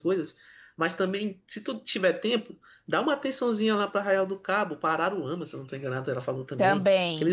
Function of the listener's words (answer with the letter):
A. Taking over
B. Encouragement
B